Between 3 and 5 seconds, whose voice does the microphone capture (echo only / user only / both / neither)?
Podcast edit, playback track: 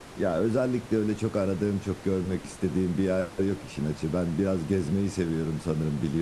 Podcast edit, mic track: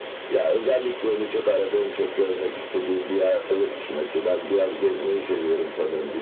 echo only